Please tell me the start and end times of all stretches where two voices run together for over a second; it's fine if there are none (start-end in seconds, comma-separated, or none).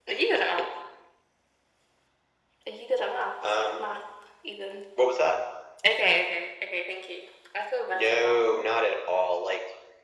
none